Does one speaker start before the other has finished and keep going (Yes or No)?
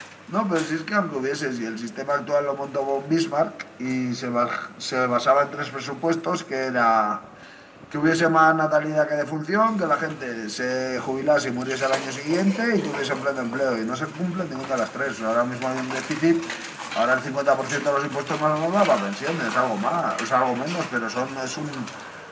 No